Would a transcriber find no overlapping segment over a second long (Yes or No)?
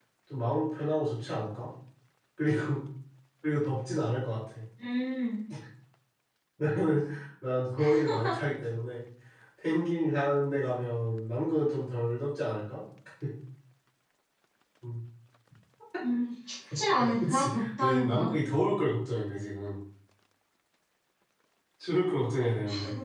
No